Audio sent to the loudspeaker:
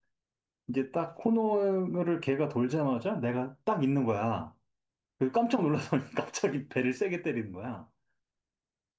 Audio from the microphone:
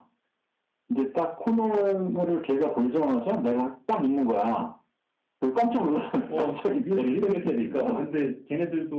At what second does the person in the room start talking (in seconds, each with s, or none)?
6.3 s